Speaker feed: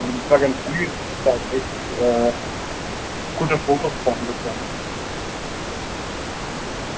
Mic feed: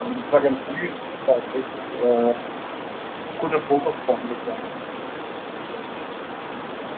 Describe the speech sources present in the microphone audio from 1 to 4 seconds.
echo only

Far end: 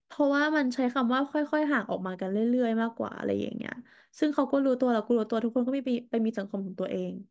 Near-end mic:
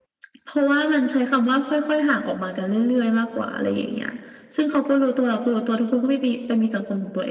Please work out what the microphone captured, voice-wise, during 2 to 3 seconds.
echo only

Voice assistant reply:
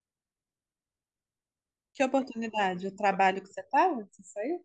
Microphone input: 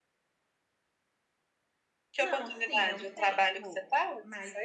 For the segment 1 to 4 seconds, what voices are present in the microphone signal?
both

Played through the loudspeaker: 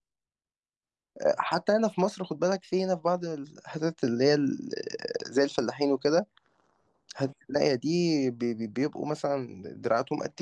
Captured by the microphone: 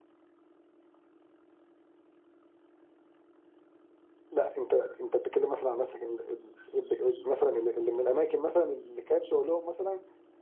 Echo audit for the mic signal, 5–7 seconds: user only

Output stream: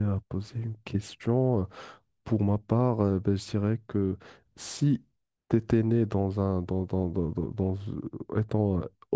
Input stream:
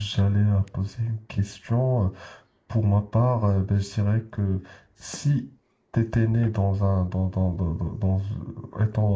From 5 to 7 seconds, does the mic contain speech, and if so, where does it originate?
echo only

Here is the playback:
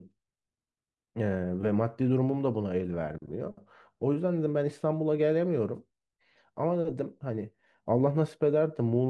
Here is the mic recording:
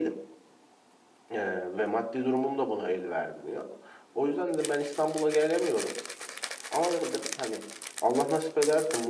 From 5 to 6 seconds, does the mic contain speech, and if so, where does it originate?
echo only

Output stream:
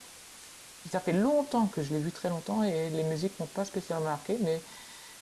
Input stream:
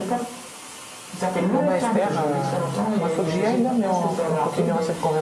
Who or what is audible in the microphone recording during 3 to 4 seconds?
both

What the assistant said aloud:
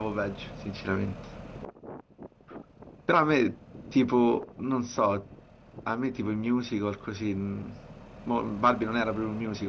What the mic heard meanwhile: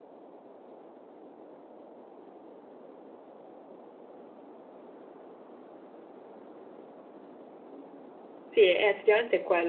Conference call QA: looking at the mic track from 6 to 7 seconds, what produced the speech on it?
neither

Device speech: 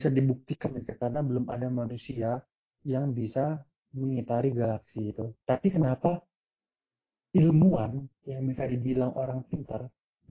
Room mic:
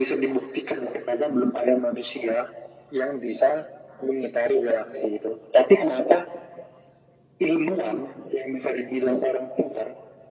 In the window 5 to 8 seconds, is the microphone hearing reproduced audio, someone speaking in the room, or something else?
echo only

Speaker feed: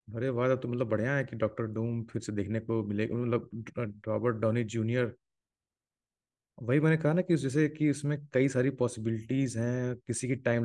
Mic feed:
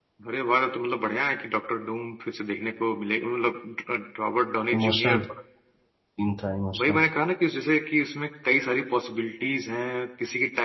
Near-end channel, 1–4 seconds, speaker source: echo only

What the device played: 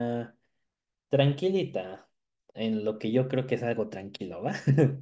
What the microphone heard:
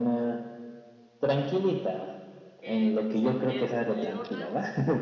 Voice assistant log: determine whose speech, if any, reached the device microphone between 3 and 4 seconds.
both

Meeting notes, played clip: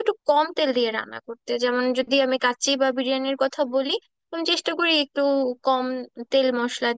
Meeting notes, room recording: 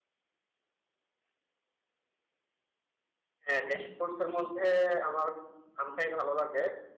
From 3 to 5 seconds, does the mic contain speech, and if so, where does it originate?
user only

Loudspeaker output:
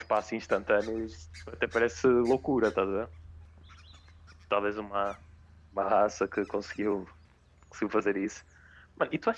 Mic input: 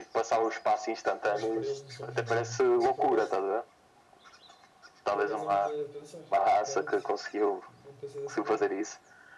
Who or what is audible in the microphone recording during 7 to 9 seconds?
both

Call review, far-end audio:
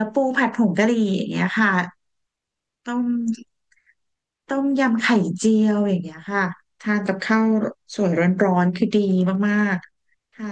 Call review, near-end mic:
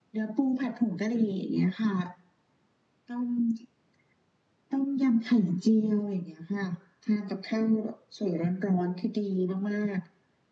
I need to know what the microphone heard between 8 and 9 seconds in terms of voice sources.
echo only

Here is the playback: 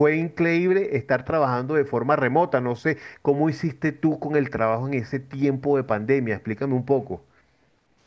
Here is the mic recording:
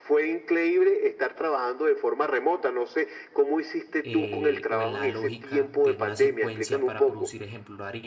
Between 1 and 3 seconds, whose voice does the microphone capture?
echo only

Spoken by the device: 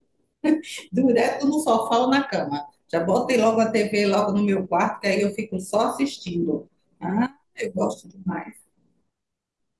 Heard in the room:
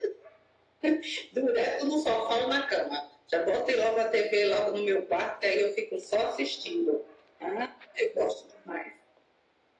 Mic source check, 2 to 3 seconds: echo only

